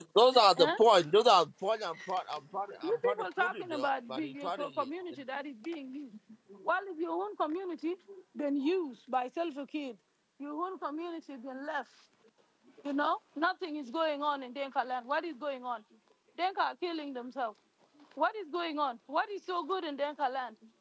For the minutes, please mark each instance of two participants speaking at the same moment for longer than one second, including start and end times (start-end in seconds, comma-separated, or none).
2.8-4.9